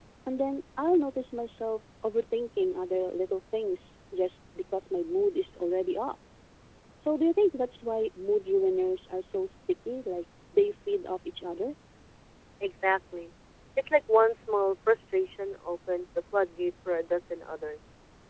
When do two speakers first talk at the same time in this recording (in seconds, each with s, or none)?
none